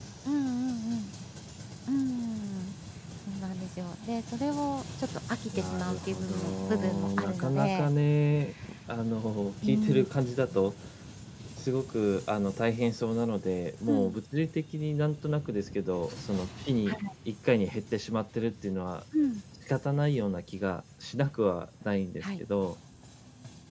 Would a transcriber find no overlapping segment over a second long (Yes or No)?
No